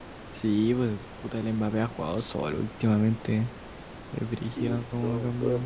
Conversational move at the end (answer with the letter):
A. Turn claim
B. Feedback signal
A